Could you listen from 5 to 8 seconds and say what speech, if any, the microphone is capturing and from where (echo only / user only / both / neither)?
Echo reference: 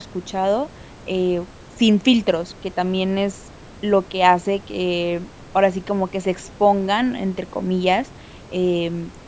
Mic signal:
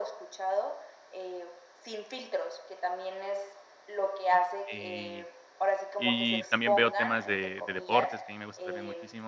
both